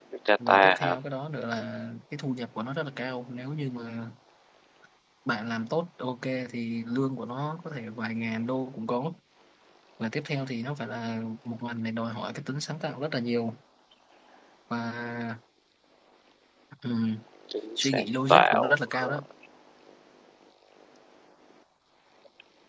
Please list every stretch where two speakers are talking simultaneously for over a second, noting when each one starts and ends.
17.8-19.2

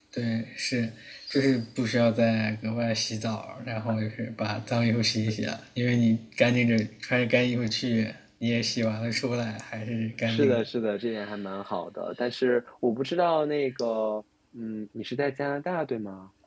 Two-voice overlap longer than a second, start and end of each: none

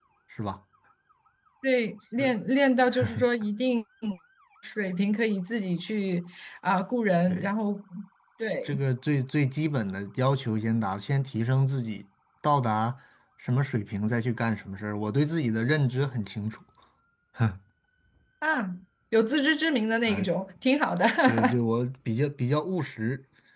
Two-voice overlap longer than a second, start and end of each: none

